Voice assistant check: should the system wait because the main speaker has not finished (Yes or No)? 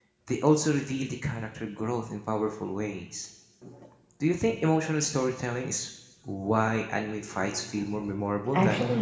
No